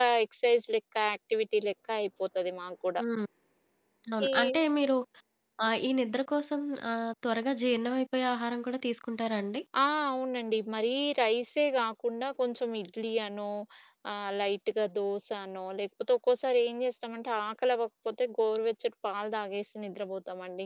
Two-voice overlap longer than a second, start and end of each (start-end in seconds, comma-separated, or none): none